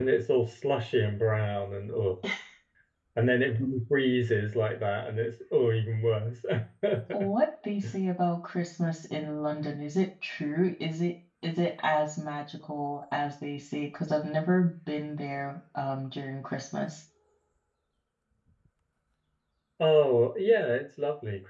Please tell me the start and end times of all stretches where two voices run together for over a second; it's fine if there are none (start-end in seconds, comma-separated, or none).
none